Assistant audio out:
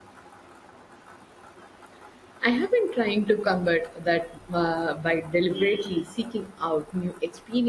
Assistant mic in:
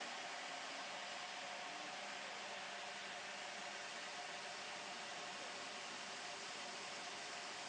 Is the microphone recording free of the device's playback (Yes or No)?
Yes